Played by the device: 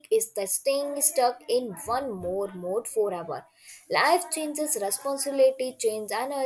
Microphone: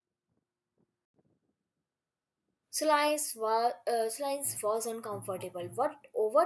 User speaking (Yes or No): Yes